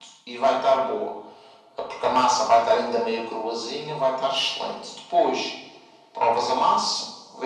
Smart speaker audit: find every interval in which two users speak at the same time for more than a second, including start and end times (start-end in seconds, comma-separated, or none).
none